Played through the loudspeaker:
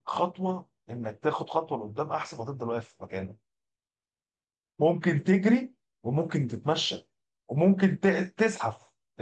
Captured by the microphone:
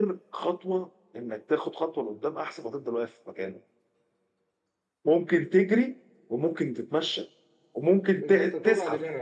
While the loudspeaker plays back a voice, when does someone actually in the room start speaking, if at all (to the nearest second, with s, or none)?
8 s